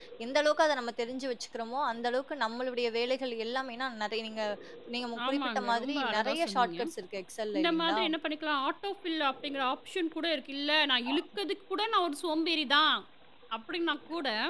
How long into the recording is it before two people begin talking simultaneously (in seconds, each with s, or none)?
5.3 s